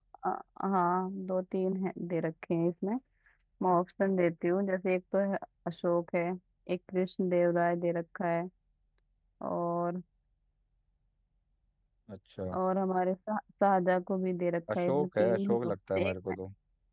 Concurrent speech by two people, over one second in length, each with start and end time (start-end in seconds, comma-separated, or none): 14.7-16.4